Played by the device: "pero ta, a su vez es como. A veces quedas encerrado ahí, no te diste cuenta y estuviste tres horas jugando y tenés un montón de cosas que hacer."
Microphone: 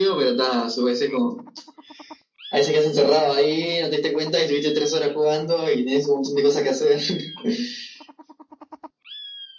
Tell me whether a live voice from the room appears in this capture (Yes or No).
No